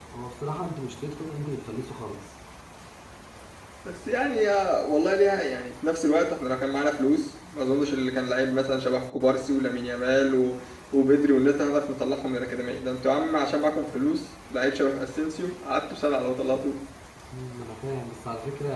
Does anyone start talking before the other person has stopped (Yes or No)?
No